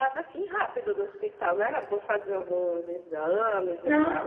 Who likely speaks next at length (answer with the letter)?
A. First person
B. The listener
B